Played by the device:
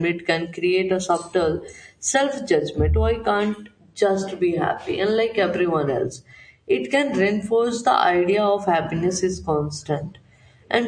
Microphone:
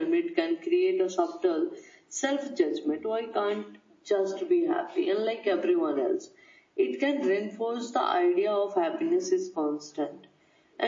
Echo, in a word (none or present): present